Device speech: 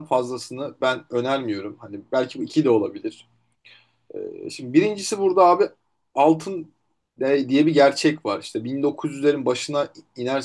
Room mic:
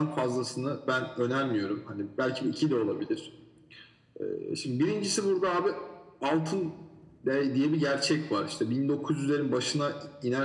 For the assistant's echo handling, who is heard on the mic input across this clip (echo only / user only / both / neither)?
echo only